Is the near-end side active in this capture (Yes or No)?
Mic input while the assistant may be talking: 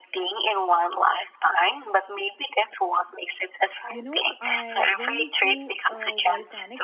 Yes